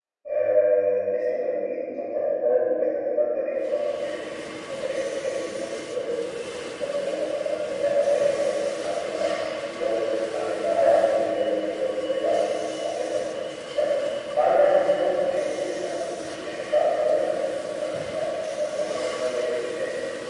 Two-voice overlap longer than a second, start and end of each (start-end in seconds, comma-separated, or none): none